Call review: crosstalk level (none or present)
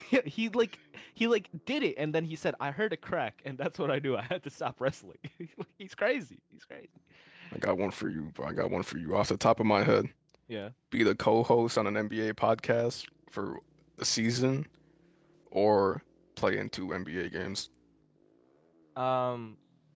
none